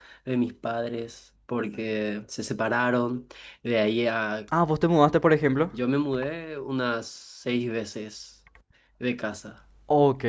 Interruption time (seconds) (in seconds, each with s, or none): none